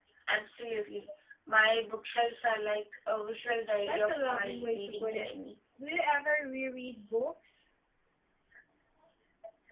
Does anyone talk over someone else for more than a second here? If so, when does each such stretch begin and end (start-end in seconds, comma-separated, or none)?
3.8-5.3